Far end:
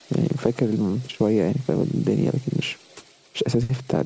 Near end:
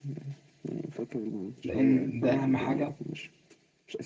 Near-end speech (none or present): present